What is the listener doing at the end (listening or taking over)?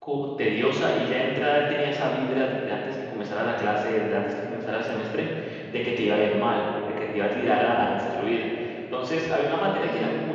listening